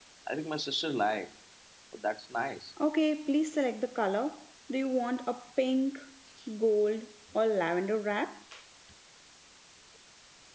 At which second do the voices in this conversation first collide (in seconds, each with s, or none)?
none